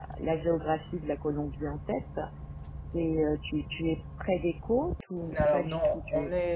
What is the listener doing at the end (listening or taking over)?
taking over